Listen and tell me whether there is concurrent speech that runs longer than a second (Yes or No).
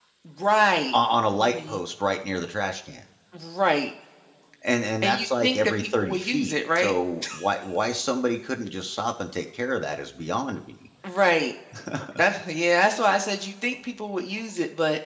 Yes